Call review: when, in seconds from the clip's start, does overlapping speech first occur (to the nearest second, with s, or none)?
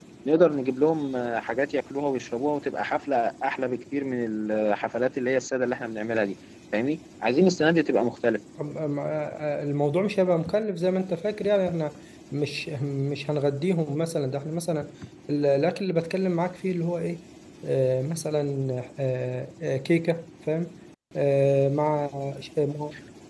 none